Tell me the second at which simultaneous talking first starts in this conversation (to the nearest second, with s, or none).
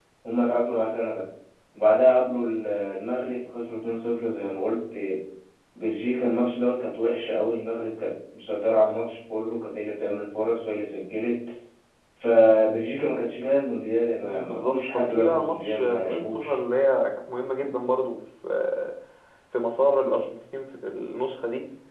14 s